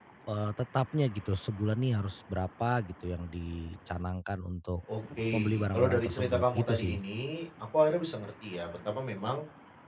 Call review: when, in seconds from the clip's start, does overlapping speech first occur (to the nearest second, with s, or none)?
5 s